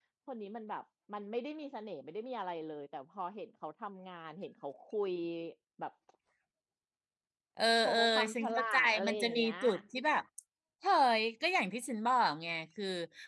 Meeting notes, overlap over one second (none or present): present